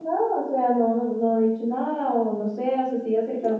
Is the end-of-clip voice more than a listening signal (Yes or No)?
No